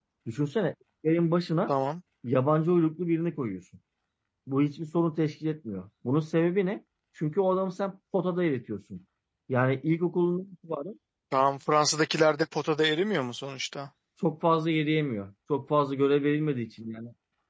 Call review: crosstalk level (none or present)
none